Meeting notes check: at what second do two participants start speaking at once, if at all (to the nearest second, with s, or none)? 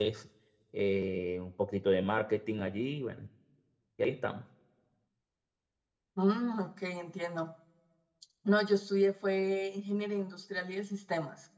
none